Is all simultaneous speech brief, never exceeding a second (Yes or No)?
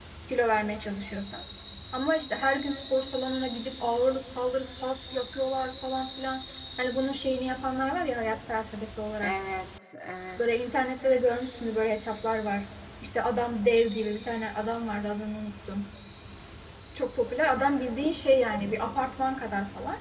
Yes